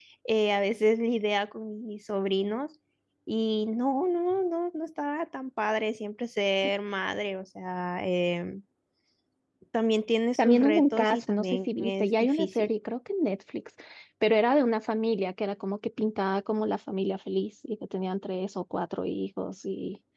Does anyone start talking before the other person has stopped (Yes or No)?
Yes